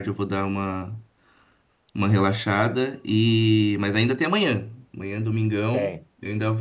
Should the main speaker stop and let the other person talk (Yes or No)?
No